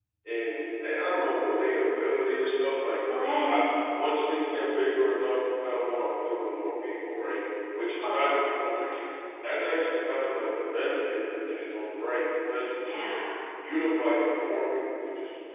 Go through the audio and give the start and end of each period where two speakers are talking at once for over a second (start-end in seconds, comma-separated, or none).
none